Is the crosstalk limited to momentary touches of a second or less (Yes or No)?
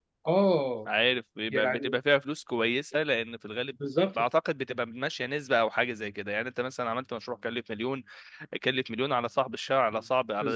Yes